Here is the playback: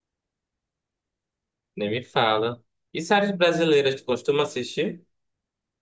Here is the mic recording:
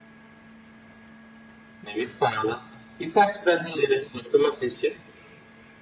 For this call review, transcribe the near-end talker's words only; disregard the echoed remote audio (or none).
none